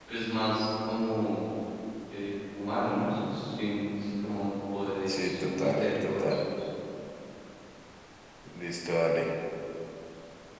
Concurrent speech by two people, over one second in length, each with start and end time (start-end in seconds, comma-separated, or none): 5.1-6.3